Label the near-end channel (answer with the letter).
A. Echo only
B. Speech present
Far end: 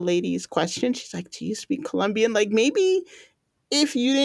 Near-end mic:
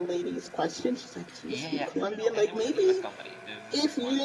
B